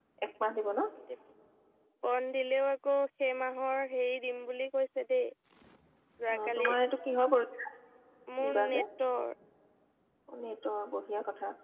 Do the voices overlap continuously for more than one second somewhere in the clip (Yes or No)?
No